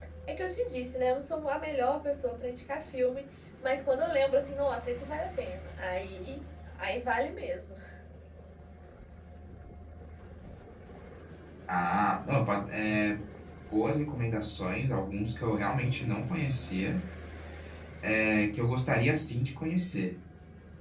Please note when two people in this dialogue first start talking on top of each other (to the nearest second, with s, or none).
none